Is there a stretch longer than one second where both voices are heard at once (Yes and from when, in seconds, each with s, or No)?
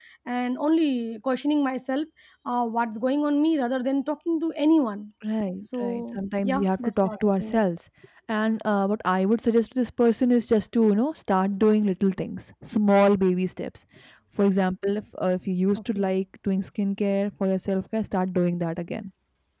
Yes, from 5.8 s